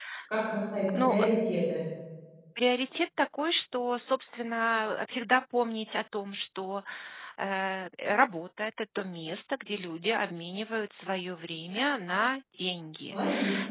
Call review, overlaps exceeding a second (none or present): none